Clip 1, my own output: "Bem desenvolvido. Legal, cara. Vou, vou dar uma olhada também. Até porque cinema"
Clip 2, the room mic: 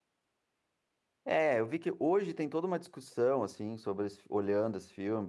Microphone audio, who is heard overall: user only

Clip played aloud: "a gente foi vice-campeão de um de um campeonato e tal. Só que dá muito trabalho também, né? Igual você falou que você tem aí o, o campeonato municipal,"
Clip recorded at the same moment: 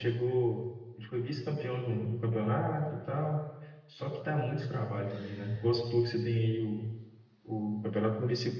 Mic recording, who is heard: echo only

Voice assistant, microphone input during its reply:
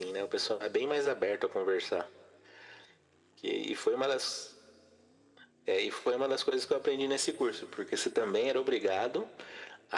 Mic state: echo only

